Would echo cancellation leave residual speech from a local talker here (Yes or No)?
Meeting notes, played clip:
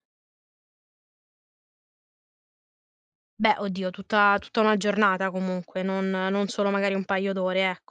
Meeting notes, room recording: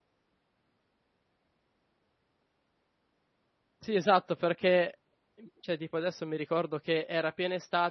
Yes